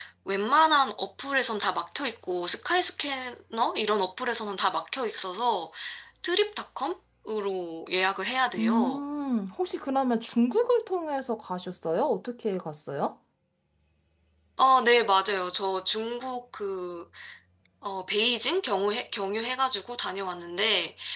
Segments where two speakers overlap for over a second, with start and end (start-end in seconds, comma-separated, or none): none